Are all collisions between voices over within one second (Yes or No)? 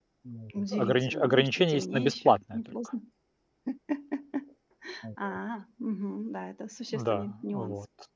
No